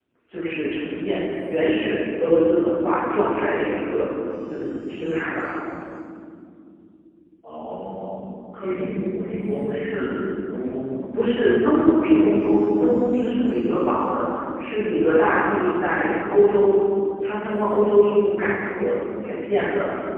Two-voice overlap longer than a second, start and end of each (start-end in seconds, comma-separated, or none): none